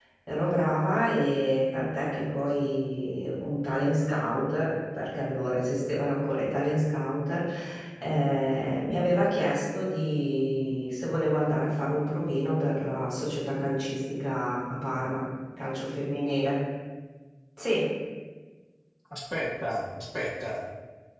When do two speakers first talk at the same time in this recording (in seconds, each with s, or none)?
none